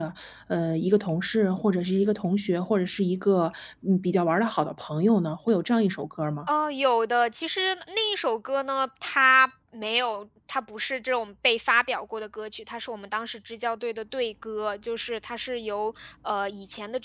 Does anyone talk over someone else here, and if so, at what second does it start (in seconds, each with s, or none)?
none